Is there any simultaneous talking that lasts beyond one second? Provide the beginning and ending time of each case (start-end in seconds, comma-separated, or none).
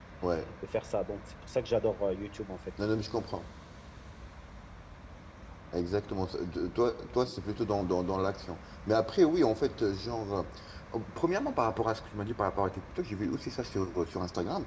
none